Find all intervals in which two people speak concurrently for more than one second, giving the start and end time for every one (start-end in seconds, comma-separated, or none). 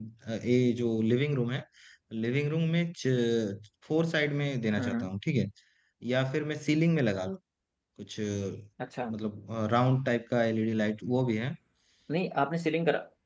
none